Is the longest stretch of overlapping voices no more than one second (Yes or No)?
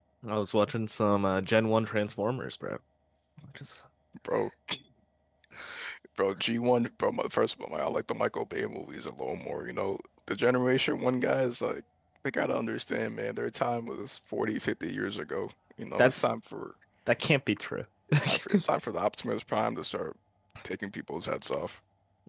Yes